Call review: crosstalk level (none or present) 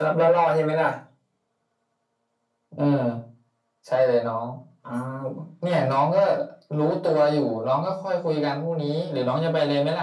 none